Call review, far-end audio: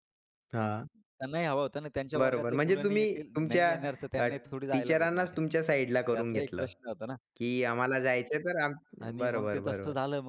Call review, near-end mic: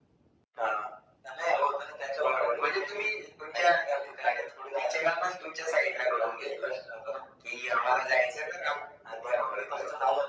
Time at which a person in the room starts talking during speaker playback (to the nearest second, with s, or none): none